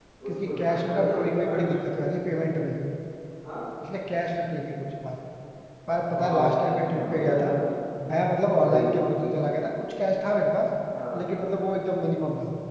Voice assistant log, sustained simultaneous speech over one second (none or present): present